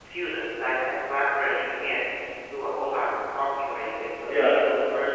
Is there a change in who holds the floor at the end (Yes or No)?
No